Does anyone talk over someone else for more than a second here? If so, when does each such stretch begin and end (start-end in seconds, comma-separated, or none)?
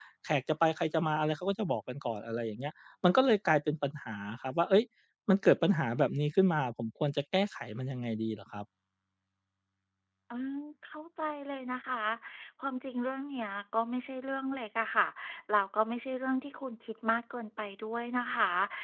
none